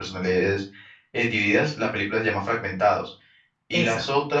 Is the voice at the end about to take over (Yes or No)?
No